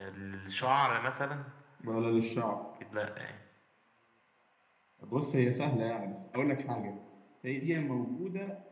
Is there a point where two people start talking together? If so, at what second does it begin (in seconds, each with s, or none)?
none